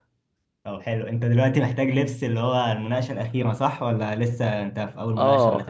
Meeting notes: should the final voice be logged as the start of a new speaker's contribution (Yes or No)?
Yes